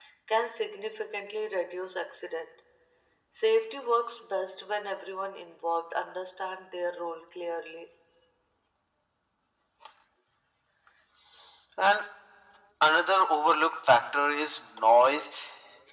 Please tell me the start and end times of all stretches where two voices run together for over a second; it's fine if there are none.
none

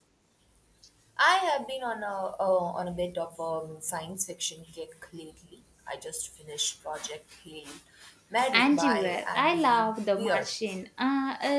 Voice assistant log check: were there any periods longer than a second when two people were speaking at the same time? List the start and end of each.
8.5-10.5

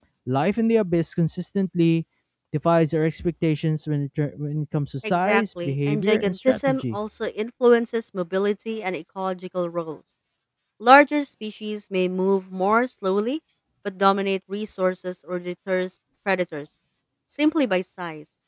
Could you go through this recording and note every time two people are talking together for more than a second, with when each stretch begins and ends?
5.1-7.0

